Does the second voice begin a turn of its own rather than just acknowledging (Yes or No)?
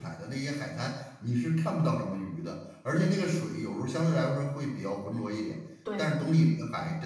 No